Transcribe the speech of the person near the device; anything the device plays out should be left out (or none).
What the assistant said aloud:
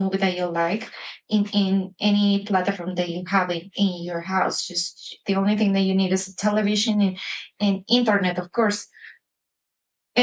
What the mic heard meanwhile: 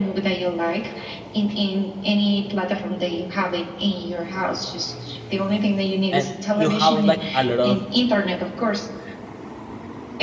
and you having like a lot of